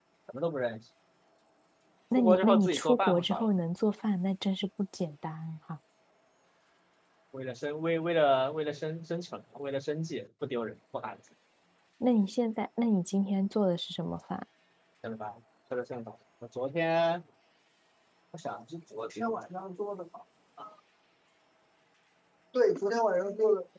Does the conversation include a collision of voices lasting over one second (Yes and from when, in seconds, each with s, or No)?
Yes, from 2.2 s